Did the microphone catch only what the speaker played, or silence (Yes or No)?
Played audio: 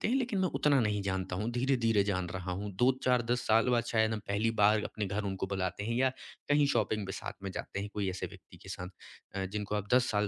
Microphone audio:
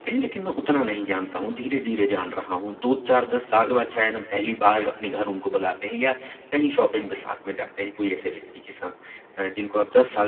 Yes